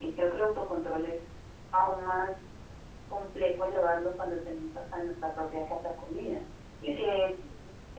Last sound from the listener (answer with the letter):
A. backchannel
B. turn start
A